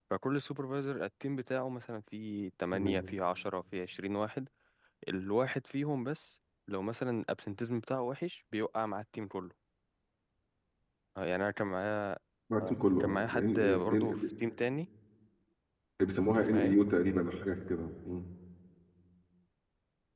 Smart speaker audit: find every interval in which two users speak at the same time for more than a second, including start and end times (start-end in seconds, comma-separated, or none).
12.7-14.2